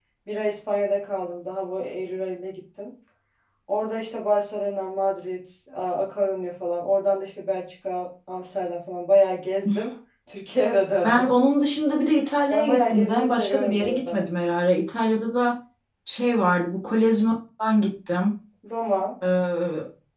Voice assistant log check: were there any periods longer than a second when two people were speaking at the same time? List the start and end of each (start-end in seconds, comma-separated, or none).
12.5-14.2